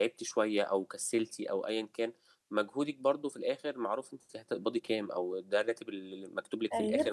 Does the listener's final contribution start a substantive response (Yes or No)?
No